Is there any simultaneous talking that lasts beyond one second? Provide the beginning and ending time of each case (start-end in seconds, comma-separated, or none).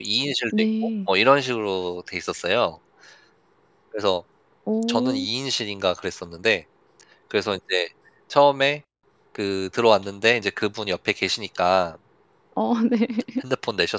none